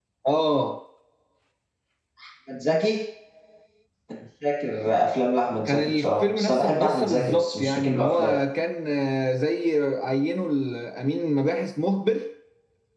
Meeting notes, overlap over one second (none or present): present